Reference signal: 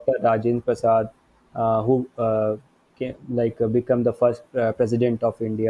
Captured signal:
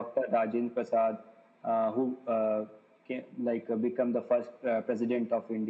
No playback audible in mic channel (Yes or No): No